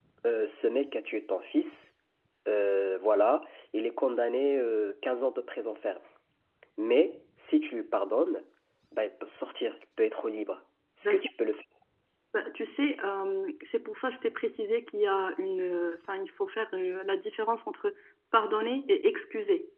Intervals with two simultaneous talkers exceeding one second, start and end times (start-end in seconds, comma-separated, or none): none